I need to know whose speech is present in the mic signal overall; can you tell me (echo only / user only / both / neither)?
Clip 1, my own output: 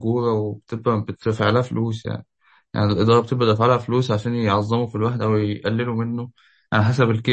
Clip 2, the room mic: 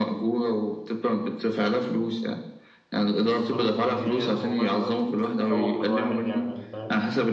both